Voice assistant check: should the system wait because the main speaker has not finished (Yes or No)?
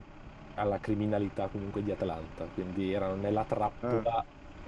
Yes